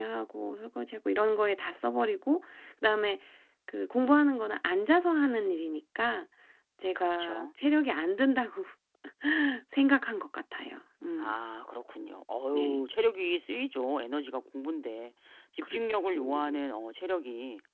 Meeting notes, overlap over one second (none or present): none